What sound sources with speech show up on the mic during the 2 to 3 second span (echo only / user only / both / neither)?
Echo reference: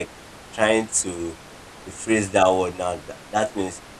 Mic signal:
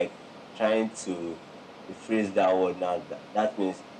echo only